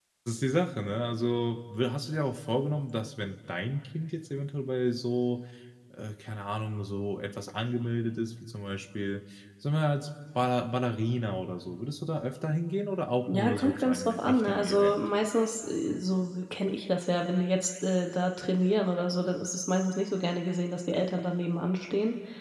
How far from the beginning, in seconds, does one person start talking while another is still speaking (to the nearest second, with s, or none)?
13 s